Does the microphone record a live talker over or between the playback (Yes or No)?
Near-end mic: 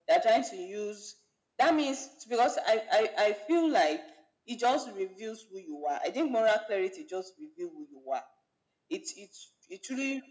No